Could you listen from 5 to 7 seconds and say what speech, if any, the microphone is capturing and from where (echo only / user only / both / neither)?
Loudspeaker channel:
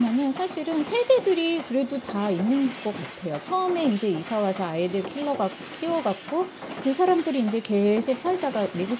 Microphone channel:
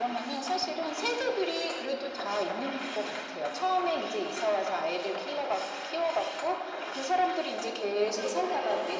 echo only